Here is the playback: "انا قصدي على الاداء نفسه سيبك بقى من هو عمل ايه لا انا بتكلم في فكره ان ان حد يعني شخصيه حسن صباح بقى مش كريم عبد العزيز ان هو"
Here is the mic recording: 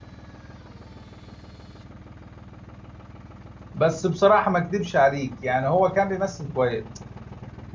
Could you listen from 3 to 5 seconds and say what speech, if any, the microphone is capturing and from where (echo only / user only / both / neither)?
user only